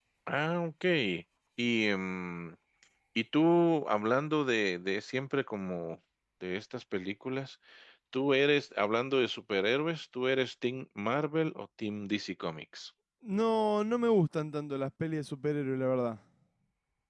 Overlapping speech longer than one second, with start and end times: none

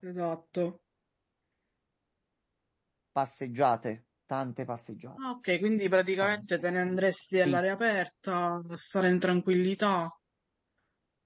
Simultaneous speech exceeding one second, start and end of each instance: none

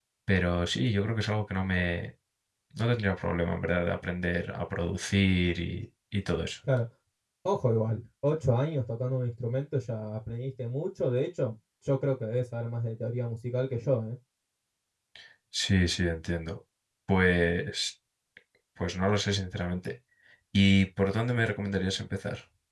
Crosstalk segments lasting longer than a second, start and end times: none

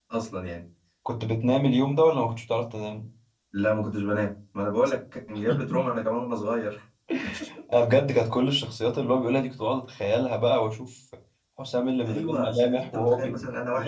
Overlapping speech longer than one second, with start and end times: 12.1-13.3

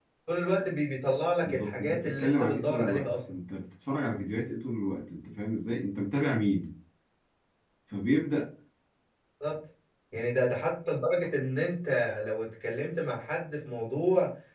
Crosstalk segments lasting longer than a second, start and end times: 1.4-3.4

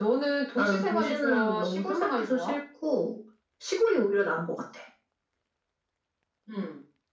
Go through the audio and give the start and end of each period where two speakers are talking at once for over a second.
0.6-2.6

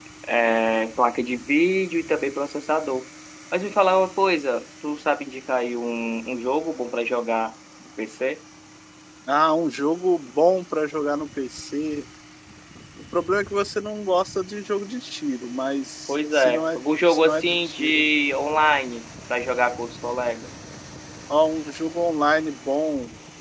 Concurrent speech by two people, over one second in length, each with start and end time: 16.1-18.1

